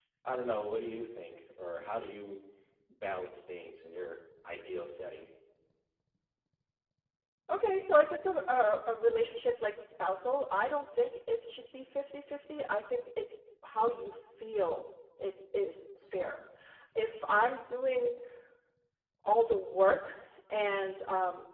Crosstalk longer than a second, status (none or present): none